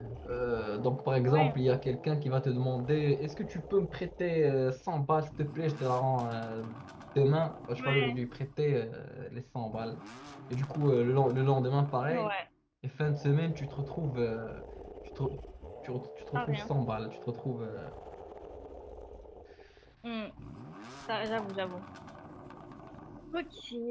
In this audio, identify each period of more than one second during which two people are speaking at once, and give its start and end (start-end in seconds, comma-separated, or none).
none